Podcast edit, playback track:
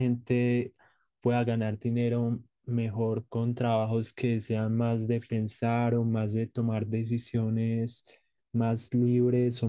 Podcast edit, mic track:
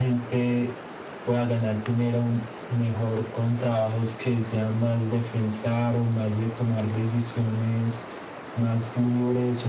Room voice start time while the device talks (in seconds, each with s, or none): none